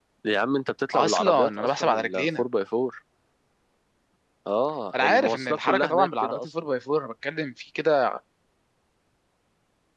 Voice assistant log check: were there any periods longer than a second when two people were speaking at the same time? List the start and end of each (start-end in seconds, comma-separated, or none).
0.9-2.4, 4.9-6.5